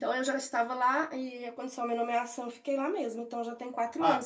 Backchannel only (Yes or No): No